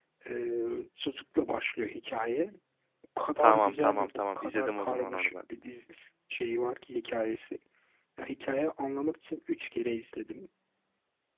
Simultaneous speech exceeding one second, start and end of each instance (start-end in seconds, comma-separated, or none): 3.4-5.4